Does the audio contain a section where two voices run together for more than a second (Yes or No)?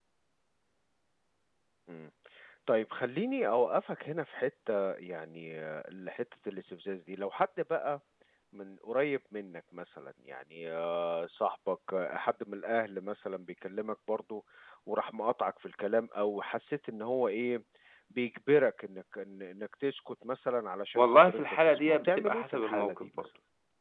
Yes